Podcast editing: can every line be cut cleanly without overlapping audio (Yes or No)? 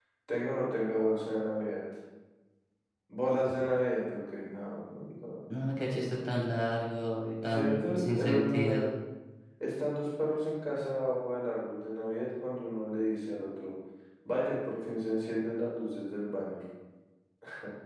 No